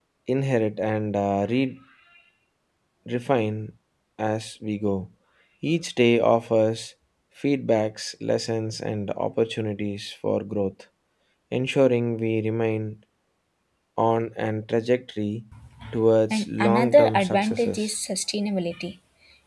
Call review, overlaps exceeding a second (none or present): present